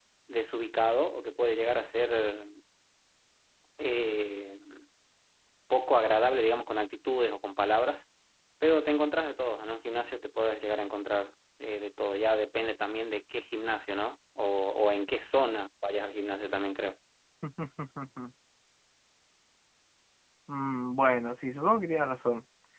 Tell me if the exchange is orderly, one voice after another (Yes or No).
Yes